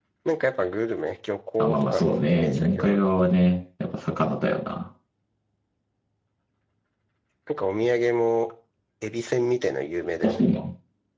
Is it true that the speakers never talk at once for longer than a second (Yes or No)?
No